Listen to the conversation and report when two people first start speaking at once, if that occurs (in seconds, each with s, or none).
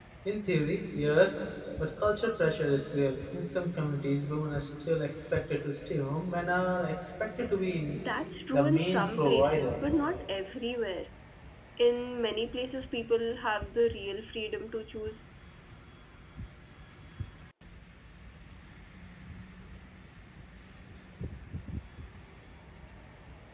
8.5 s